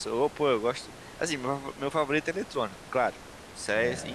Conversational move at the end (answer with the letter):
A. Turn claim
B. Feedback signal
B